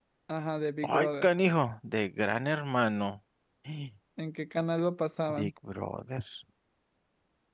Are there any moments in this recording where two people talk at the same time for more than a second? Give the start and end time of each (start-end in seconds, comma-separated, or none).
none